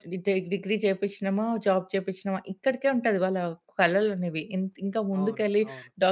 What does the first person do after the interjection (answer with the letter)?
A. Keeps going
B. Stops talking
A